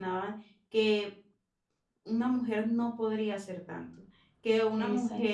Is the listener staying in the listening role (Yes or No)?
Yes